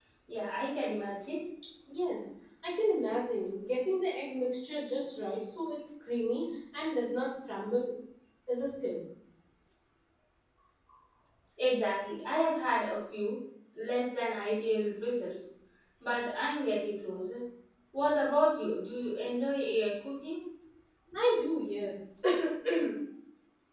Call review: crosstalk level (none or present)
none